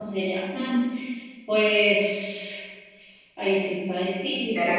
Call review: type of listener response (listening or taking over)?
taking over